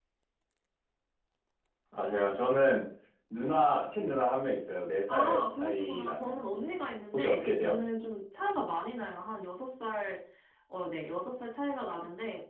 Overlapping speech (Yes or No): Yes